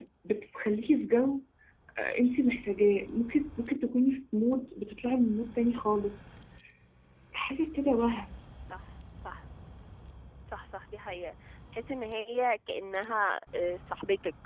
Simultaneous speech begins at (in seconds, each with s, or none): none